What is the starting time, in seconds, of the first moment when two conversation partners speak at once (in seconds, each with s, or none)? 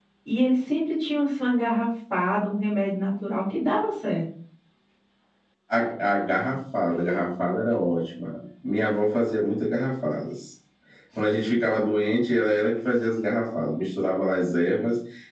none